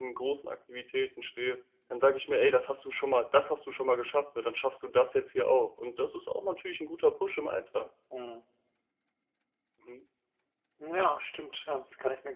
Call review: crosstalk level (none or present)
none